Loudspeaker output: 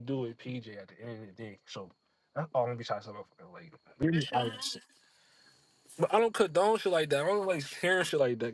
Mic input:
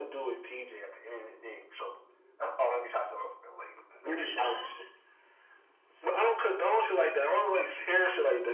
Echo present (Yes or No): Yes